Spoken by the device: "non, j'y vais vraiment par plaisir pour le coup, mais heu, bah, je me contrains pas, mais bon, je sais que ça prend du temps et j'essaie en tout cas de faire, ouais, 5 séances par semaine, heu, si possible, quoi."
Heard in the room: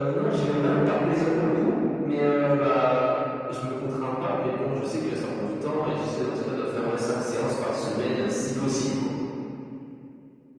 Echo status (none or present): present